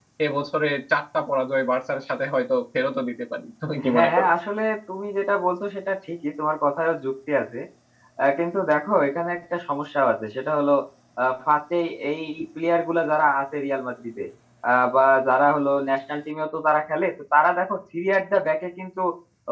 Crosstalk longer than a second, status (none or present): none